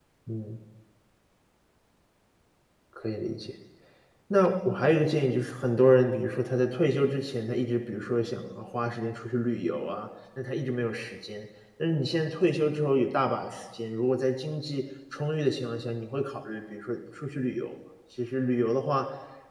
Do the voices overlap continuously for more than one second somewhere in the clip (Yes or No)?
No